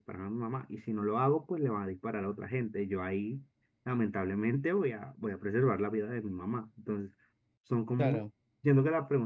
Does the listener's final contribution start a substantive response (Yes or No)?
No